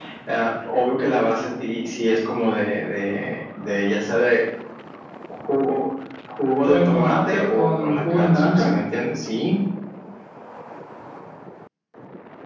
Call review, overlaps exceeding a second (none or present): present